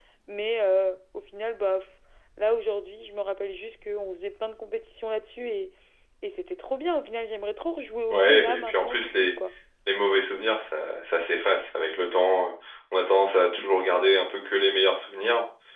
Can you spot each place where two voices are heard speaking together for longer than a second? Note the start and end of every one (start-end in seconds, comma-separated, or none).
8.1-9.3